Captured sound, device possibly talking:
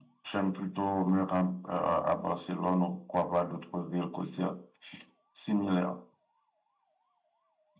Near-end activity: none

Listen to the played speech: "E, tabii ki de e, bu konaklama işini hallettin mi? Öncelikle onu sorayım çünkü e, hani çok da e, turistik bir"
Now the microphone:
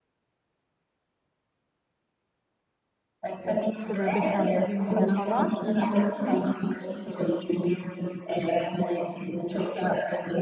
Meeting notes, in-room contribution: present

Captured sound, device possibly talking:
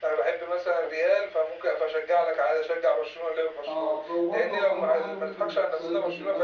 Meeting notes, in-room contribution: present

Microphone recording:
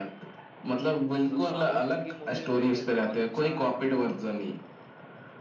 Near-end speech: present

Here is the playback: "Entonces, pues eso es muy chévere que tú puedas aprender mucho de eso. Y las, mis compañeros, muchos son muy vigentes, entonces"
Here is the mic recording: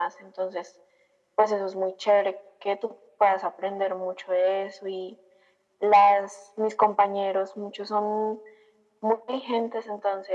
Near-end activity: none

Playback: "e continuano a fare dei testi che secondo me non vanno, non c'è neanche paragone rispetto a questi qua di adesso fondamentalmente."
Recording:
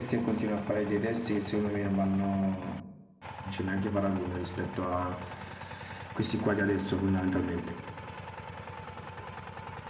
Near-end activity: none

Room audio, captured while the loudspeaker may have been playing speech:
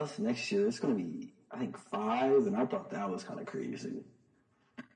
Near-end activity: none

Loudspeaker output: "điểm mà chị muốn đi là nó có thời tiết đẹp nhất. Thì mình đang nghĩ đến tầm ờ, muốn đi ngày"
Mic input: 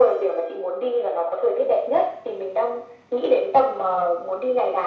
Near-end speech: none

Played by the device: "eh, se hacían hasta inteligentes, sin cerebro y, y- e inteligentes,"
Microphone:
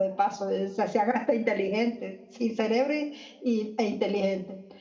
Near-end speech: none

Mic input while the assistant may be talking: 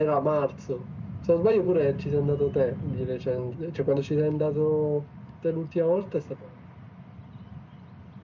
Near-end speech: none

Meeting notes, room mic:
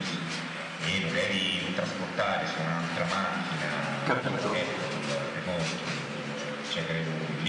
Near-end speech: present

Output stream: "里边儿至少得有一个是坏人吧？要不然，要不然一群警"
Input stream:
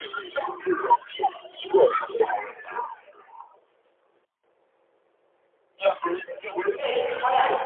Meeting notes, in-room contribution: present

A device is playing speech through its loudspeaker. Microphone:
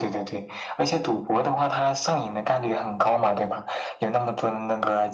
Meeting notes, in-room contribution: none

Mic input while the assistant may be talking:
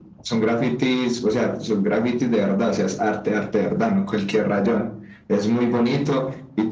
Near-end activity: none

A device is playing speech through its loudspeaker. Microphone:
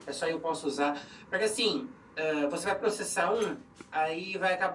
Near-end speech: none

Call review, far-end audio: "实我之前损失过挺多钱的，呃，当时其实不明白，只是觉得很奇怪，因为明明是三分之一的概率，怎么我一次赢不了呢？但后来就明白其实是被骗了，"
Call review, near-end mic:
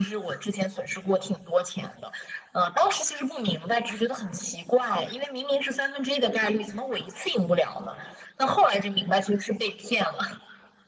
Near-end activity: none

